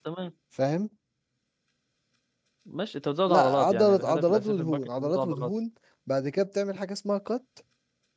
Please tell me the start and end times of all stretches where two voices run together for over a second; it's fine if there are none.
3.3-5.5

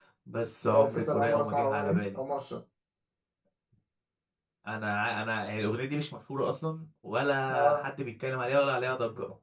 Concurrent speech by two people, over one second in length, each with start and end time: 0.7-2.2

